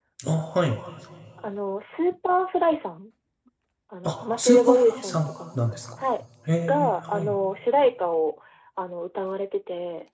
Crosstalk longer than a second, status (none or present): present